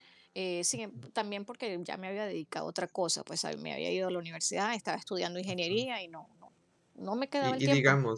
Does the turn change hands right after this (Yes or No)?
Yes